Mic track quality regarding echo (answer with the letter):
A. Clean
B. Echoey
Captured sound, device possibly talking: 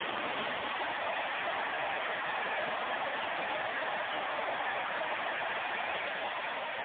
A